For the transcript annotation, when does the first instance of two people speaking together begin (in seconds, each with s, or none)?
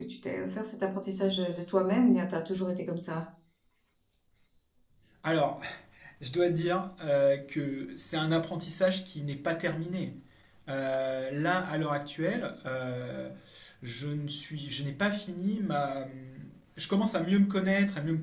none